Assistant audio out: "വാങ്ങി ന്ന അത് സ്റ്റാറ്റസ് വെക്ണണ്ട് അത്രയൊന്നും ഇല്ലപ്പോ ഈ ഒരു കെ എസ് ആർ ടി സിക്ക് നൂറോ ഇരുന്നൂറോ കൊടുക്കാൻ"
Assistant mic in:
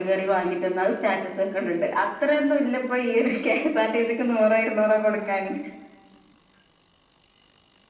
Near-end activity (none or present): none